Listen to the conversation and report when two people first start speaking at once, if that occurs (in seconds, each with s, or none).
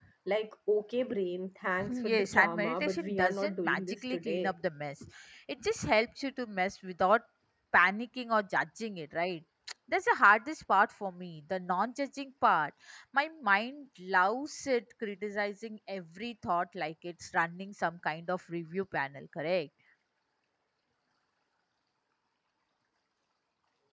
1.8 s